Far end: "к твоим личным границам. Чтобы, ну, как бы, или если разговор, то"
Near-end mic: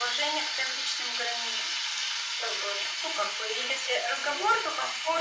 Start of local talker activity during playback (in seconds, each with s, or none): none